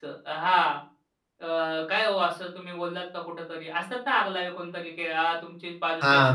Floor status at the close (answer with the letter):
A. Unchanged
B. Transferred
B